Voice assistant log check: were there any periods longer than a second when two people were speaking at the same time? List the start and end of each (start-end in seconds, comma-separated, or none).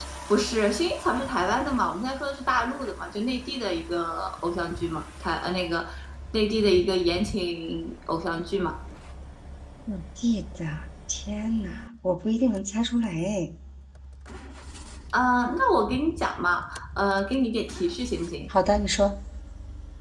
none